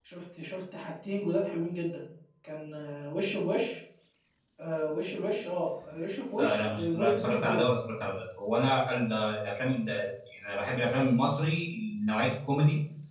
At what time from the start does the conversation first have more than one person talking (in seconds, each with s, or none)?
6.4 s